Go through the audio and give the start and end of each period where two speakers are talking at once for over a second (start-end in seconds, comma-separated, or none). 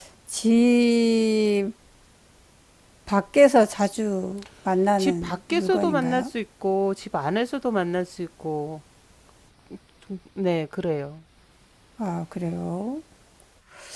5.0-6.2